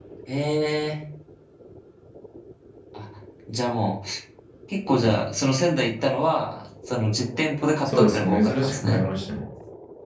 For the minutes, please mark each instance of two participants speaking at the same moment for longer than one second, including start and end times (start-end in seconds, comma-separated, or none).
7.8-9.1